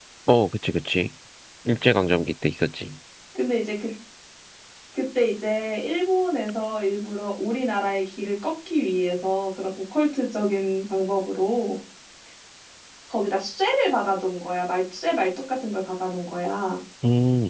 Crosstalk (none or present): none